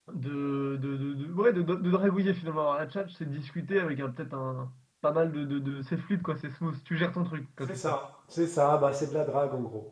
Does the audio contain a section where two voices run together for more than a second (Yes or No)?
No